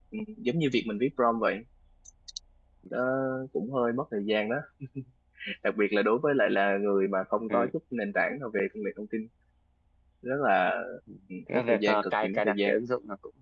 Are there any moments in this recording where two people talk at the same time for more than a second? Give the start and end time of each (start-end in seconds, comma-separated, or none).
11.5-12.8